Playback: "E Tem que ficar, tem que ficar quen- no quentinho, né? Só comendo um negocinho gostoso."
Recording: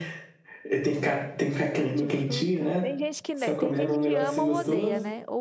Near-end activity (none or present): present